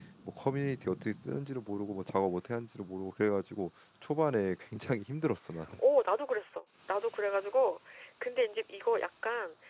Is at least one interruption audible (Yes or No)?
No